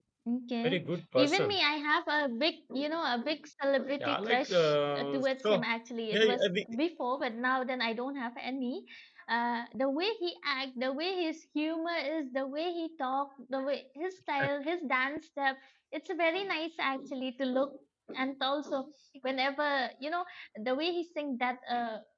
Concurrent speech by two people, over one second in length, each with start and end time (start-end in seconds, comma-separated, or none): 4.0-5.6